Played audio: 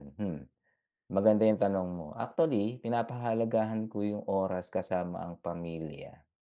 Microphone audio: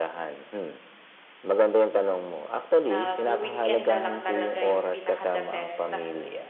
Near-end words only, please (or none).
nag-wi-weekend nalang talaga yung pinaka the best